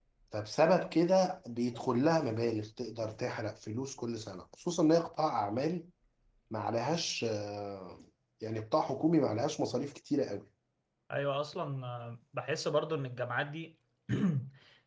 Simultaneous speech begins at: none

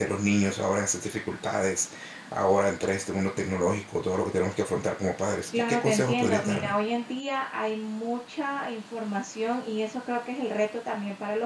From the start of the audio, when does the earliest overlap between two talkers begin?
5.5 s

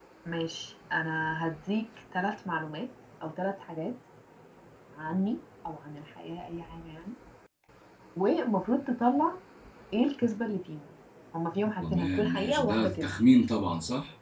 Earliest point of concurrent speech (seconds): 11.8 s

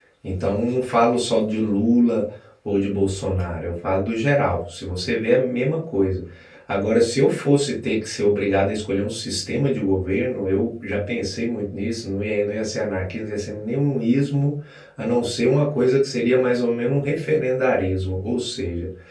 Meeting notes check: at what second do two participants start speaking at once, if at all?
none

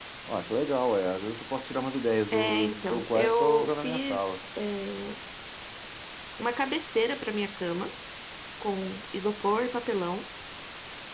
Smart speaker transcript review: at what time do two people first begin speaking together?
2.3 s

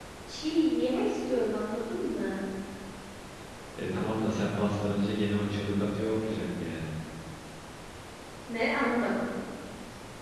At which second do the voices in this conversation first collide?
none

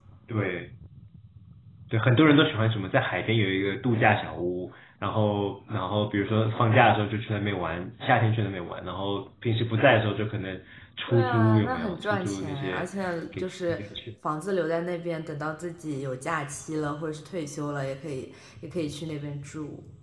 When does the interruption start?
11.1 s

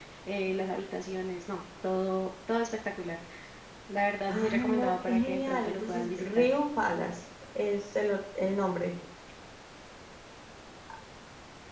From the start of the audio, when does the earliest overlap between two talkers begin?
4.3 s

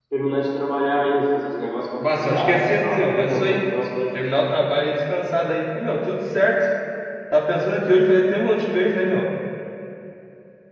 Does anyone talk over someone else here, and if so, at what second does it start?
2.0 s

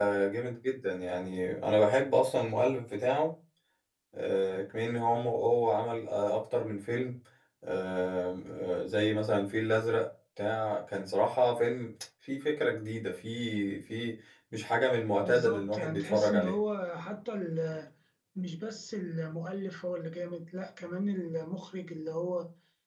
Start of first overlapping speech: 15.2 s

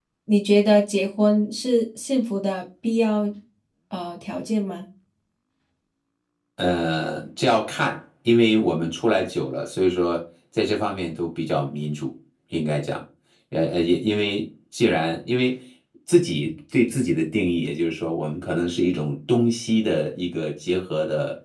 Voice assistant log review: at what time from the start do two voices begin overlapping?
none

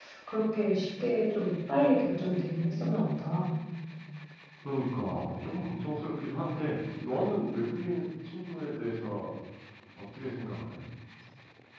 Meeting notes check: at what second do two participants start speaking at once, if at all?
none

